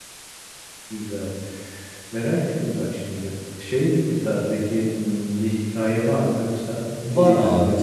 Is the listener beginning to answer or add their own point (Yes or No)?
Yes